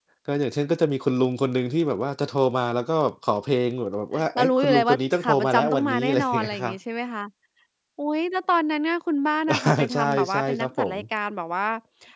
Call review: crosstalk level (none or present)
present